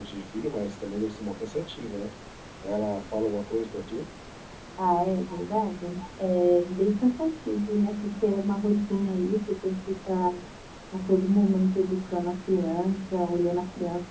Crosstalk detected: No

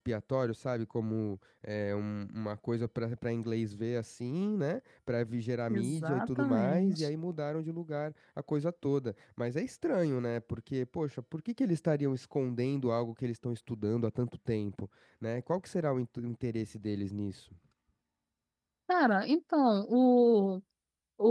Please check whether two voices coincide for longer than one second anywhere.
Yes, from 5.7 s

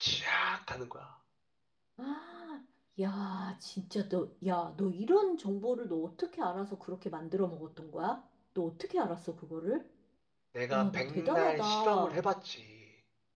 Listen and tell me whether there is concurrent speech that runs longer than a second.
Yes, from 10.7 s

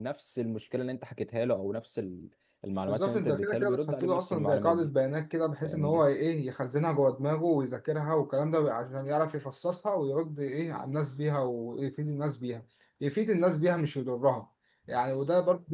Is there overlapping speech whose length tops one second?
Yes, from 2.9 s

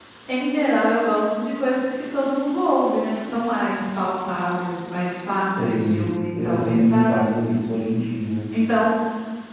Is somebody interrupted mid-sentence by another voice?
Yes, from 5.5 s

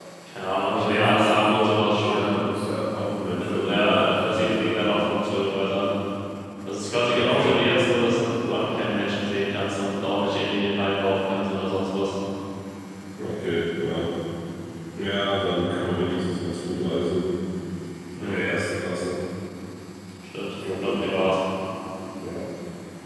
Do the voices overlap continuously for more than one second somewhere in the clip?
Yes, from 0.6 s

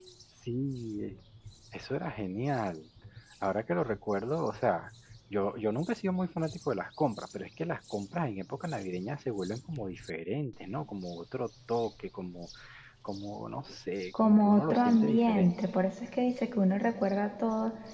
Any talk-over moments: Yes, from 14.1 s

